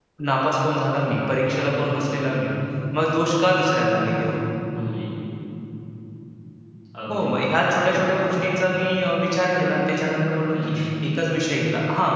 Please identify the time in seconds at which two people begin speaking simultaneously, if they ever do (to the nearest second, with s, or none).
7 s